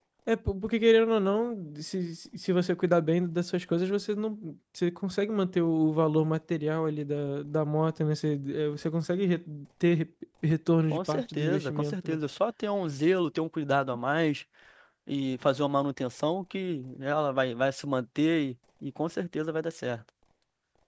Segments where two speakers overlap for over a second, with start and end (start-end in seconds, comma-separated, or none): 10.9-12.2